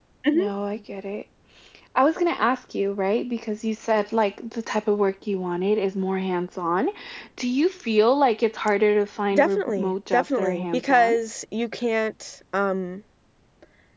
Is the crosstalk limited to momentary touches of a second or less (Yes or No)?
No